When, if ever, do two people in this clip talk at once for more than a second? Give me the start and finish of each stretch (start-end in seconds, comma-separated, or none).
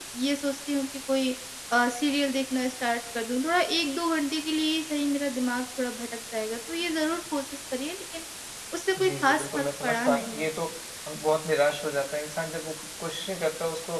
9.0-10.5